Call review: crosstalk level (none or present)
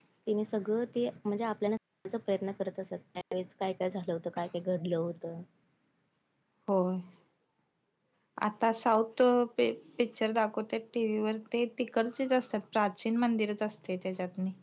none